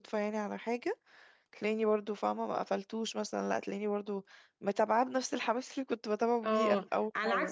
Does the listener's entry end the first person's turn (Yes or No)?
Yes